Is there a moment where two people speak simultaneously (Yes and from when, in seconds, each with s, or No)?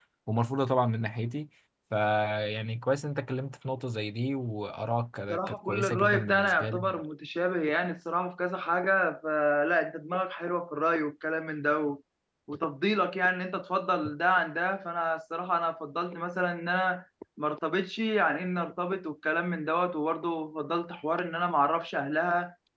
Yes, from 5.3 s